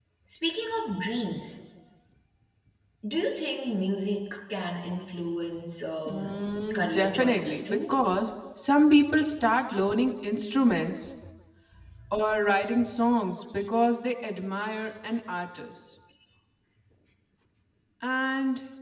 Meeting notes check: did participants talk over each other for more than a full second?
Yes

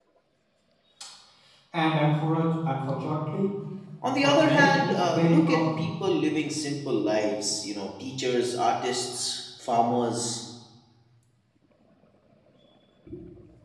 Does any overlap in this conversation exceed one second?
Yes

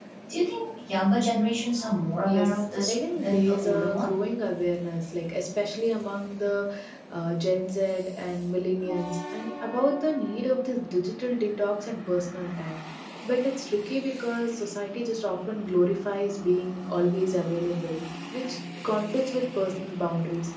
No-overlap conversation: No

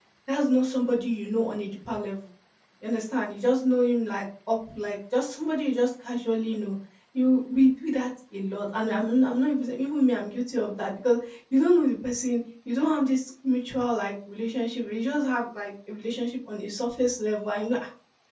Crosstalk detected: No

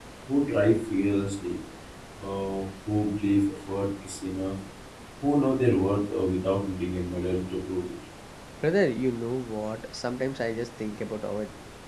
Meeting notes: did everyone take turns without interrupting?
Yes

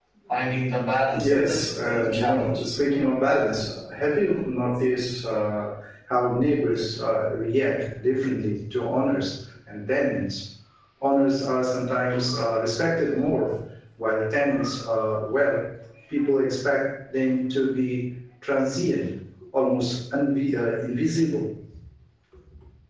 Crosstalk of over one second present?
Yes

